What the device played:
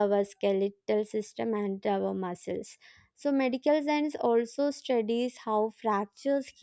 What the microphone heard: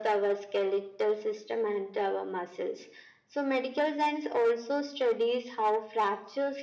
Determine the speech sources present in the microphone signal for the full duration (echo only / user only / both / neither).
echo only